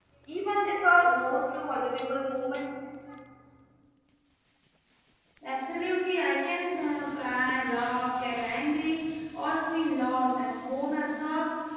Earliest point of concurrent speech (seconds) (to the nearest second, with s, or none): none